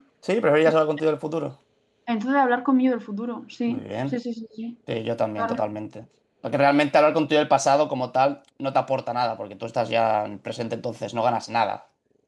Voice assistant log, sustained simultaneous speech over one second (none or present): none